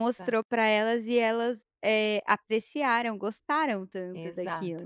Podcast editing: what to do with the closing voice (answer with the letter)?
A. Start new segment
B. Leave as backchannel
A